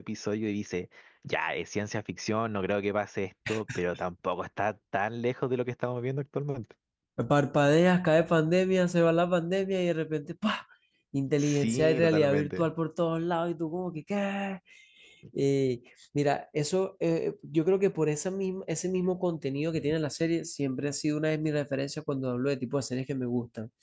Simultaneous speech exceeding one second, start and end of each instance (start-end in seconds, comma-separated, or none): 11.4-12.7